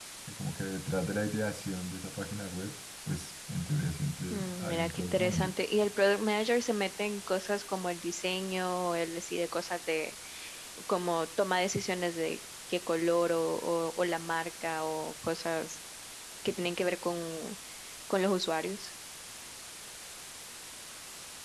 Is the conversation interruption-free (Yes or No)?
No